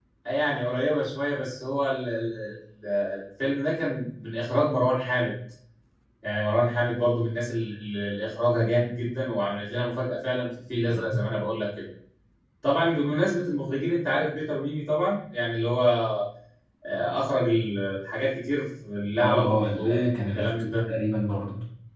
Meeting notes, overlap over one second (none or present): present